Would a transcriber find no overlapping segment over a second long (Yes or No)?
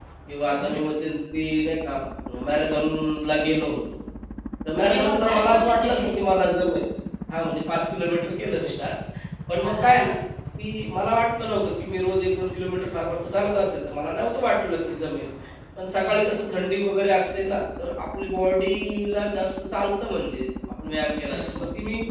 No